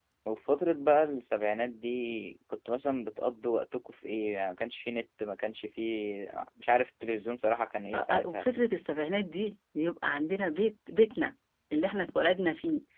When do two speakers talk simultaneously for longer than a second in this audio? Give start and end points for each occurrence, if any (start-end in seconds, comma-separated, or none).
none